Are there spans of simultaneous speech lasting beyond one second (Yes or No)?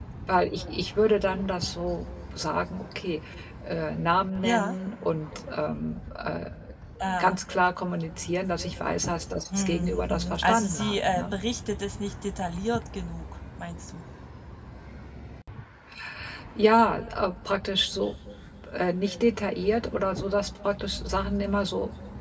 Yes